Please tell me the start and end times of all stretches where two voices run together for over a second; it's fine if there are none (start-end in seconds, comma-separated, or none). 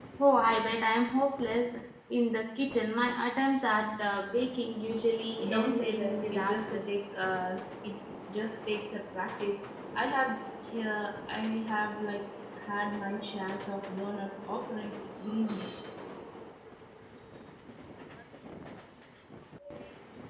5.5-6.8